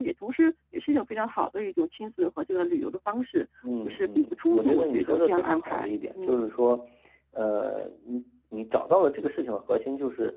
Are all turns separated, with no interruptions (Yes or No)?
No